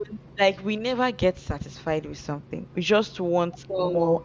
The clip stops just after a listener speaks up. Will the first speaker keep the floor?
Yes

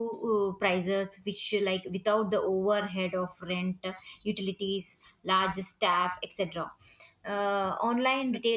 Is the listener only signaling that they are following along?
Yes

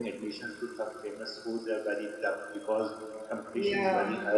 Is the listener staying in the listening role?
Yes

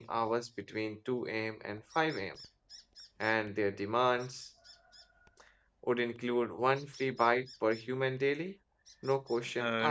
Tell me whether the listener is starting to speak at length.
Yes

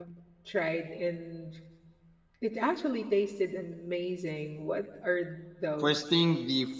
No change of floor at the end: No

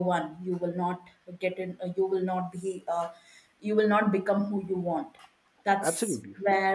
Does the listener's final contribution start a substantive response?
No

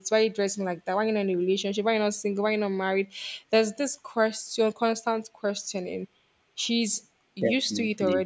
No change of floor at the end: Yes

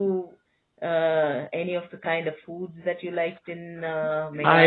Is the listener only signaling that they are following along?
No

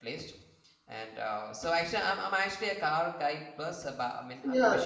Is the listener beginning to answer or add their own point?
Yes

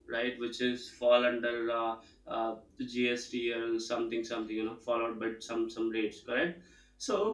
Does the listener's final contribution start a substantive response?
No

